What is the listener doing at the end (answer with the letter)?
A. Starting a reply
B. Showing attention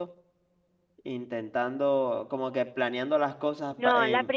A